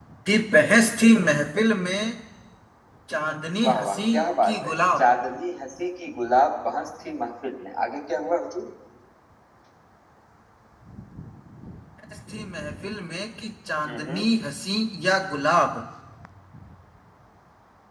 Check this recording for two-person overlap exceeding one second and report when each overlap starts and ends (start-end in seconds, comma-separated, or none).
3.6-5.0